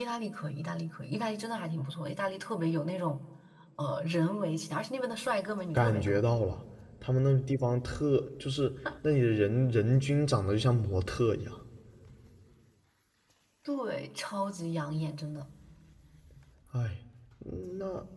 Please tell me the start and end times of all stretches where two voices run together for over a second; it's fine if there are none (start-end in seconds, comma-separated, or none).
none